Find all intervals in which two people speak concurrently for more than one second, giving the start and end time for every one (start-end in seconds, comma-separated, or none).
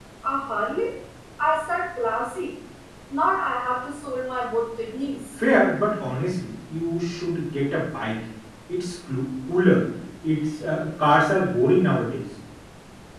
none